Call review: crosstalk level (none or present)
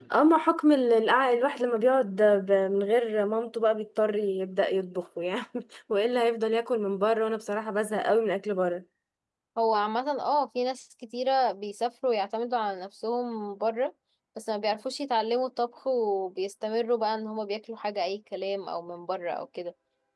none